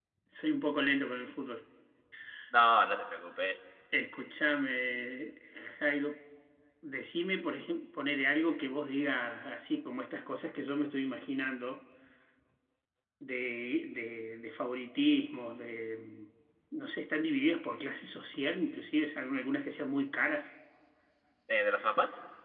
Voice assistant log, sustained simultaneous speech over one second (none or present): none